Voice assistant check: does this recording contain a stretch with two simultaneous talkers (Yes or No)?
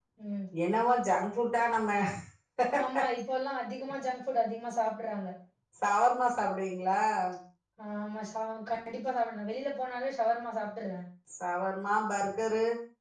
No